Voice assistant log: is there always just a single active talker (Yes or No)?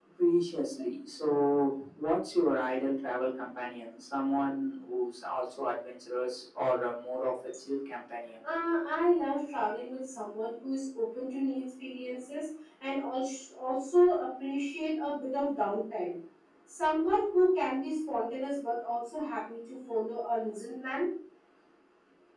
Yes